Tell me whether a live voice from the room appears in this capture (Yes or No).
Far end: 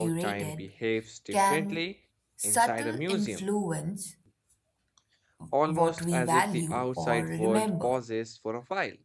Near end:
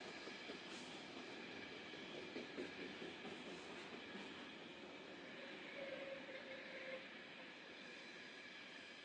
No